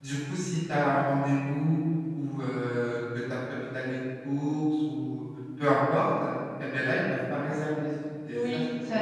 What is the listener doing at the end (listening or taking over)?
taking over